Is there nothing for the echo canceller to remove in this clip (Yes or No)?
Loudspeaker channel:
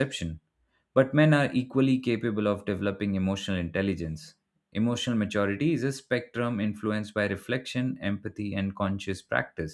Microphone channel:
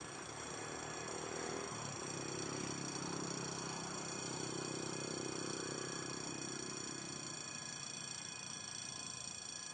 Yes